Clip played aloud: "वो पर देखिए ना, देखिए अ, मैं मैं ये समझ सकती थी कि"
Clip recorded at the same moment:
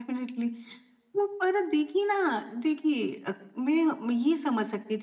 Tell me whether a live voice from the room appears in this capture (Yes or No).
No